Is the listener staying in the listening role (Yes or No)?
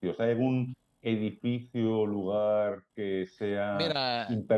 No